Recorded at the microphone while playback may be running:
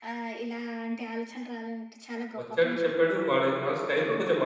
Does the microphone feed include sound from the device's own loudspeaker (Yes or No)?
Yes